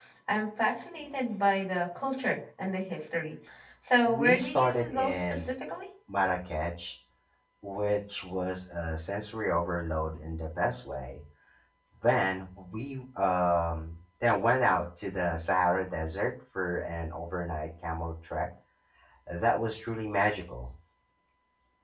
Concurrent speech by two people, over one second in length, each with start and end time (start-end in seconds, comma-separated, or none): 4.0-5.4